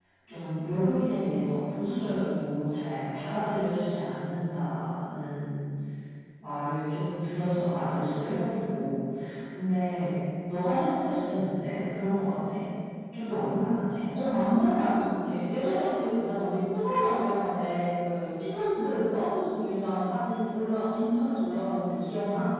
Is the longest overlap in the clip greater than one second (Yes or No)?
No